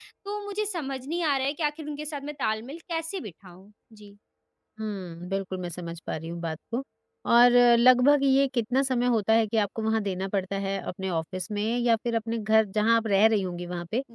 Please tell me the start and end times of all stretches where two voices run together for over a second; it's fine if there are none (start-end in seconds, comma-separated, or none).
none